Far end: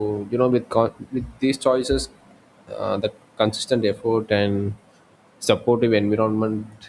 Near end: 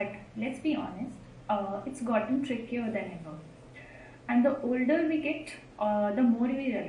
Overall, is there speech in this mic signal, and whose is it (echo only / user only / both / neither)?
user only